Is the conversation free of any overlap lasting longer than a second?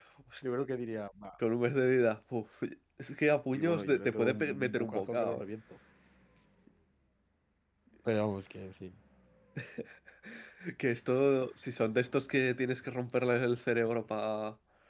No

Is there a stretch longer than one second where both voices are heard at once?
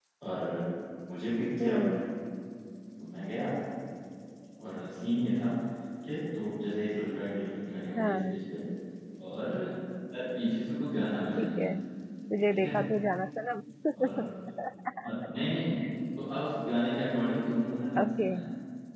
No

